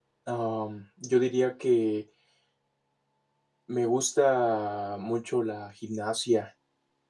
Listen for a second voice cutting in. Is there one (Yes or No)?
No